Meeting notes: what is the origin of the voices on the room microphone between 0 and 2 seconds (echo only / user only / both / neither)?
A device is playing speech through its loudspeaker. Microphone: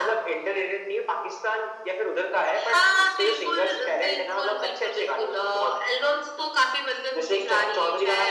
echo only